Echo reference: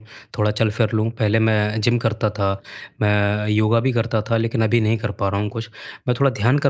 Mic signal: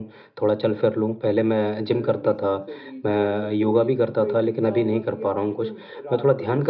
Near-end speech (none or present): present